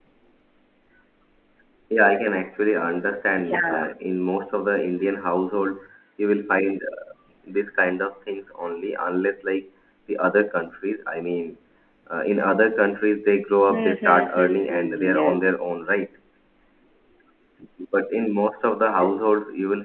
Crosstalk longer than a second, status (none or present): present